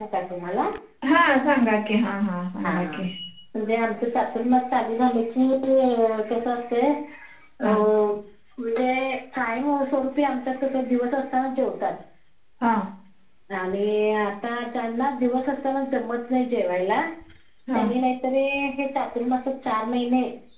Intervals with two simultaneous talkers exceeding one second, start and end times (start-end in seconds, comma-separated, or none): none